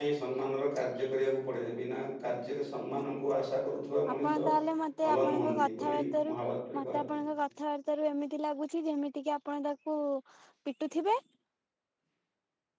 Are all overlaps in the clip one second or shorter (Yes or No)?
No